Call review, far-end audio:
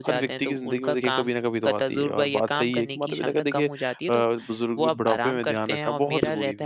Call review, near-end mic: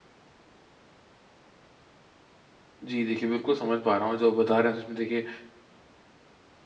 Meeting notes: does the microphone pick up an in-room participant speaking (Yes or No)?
Yes